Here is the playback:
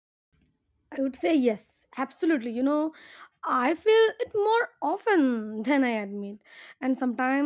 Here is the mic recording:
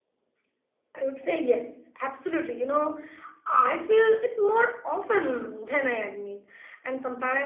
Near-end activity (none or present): none